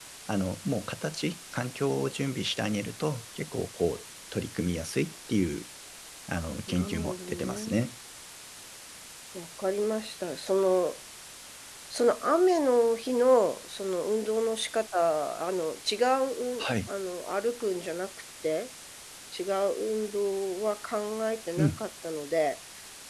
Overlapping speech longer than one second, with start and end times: 6.7-7.9

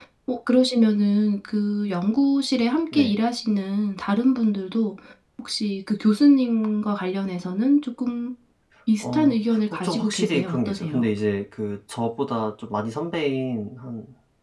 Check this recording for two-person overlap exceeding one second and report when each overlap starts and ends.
9.0-11.1

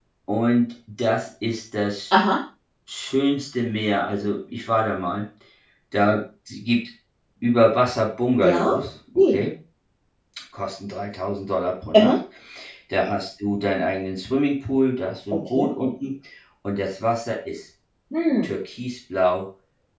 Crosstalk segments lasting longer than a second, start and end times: none

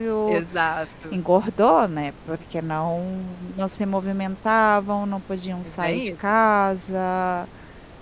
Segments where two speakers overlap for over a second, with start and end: none

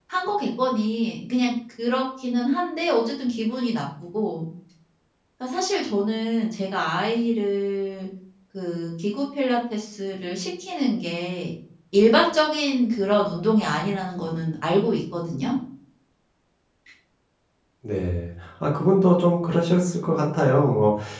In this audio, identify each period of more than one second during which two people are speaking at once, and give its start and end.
none

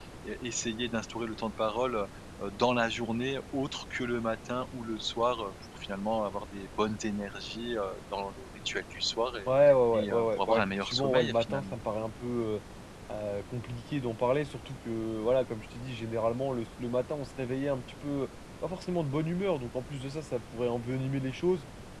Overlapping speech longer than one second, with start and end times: 9.9-11.8

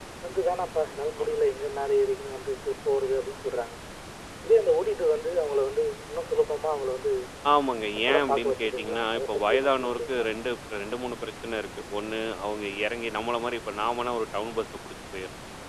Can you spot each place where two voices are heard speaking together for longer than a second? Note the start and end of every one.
7.9-10.3

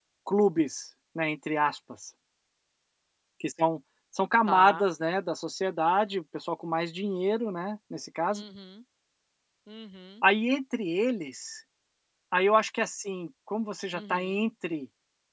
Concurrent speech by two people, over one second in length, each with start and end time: none

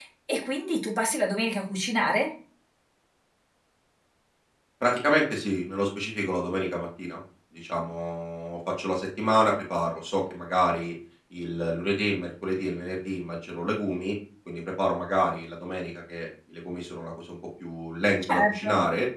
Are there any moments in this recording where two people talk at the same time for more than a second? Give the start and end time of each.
none

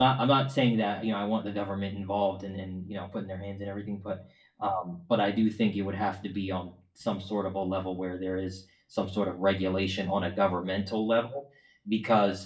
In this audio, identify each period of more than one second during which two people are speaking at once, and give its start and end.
none

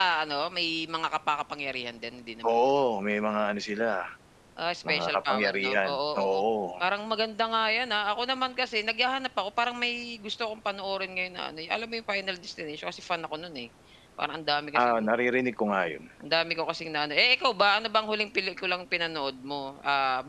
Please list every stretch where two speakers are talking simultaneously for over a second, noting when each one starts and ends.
4.9-6.4

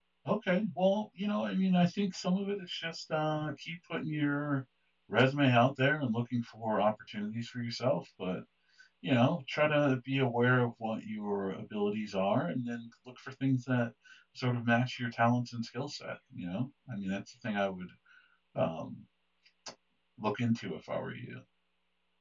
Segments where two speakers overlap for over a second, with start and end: none

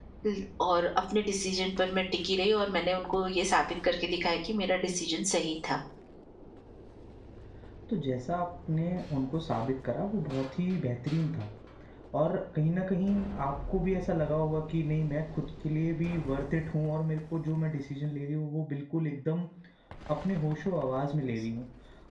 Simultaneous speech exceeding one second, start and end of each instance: none

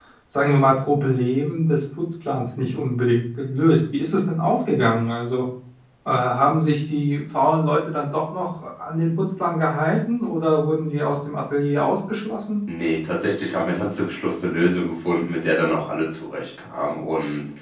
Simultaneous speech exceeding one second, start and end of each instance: none

